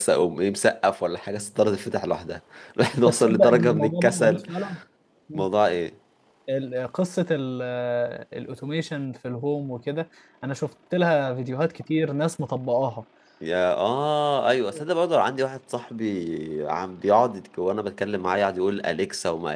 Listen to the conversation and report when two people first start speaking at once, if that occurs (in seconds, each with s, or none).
2.9 s